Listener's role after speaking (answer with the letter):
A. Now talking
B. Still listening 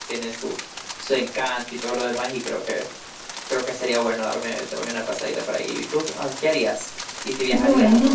A